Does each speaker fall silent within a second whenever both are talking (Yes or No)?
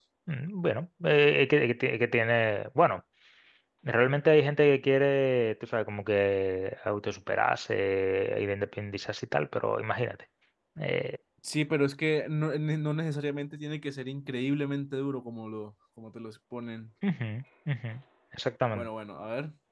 Yes